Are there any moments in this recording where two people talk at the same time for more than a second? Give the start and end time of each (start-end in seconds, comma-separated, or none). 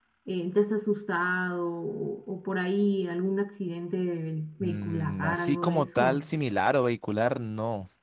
4.6-6.2